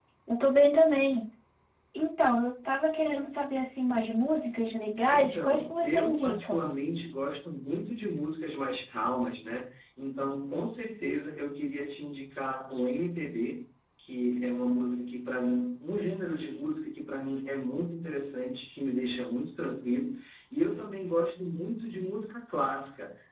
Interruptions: present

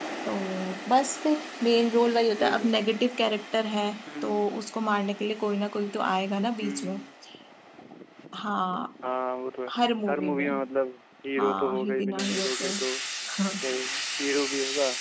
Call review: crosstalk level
present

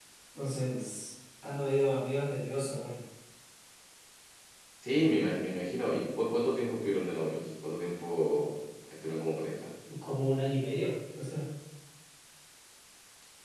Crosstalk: none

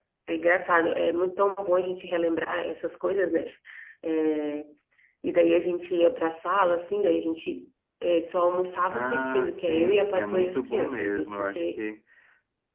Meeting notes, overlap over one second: present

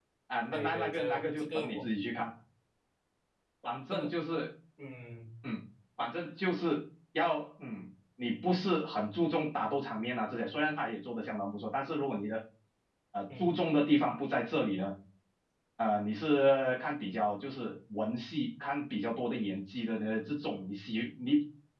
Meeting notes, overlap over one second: present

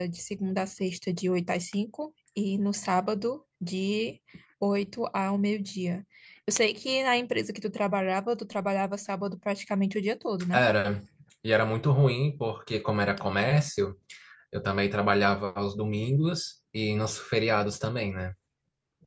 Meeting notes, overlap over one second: none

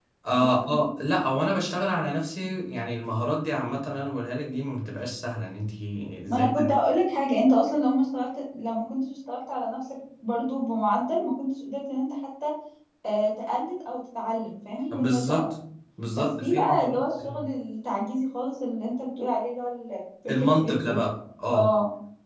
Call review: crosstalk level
present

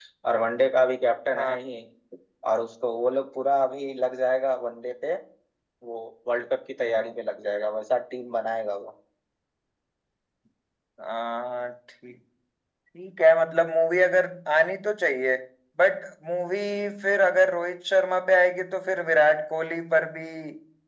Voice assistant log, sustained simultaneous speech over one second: none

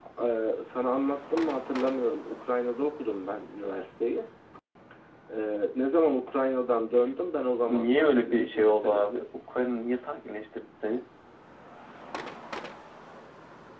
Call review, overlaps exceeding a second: present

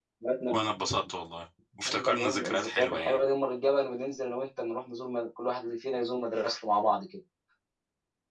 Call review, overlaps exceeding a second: present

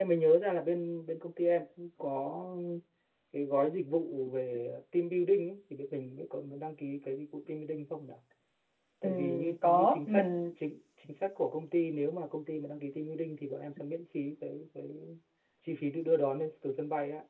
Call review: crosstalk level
present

